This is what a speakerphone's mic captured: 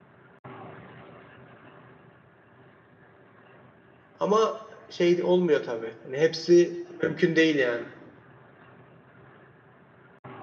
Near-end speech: present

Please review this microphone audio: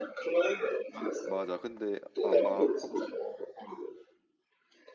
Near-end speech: present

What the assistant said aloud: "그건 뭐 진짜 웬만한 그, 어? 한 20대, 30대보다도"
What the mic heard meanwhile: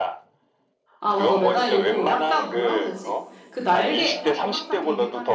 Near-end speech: present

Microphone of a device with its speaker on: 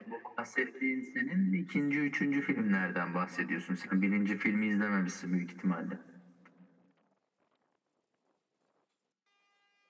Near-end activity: none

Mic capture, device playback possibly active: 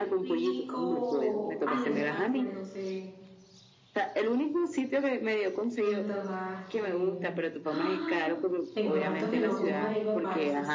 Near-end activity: present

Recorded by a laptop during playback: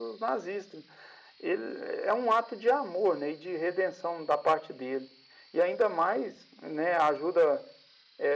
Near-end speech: none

